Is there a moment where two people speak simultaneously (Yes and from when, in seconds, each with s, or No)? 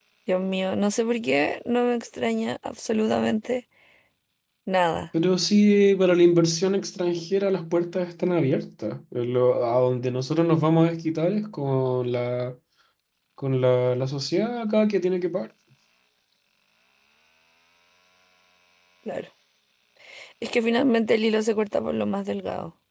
No